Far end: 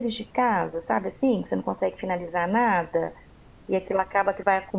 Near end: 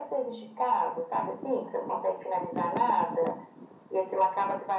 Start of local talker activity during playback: none

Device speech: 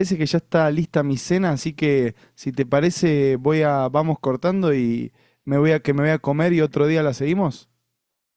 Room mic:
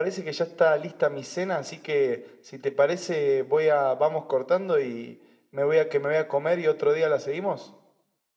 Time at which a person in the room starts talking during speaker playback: none

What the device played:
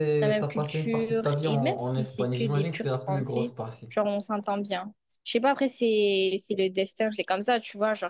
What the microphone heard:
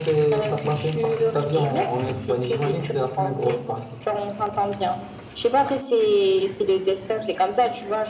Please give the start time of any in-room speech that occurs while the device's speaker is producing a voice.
none

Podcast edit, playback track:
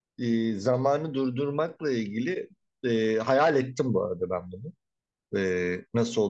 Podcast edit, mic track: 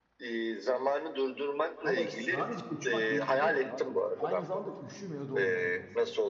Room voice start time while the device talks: 1.8 s

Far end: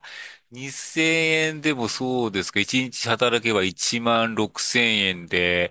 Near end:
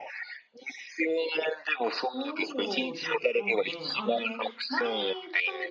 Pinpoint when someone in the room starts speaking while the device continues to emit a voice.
2.1 s

